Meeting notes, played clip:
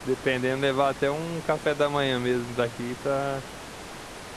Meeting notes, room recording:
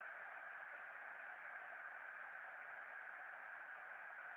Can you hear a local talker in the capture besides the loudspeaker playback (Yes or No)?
No